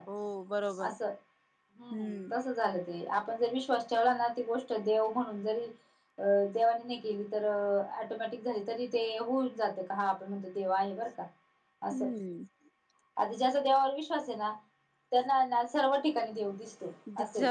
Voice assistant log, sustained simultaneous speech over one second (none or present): none